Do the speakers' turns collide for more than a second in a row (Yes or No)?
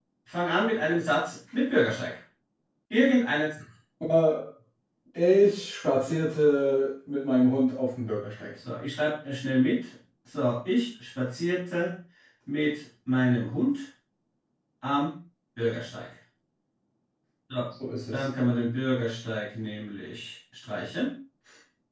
No